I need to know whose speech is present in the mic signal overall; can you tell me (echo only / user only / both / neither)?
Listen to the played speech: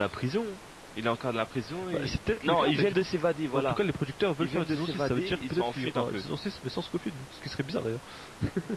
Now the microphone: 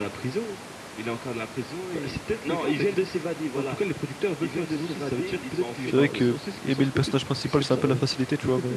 both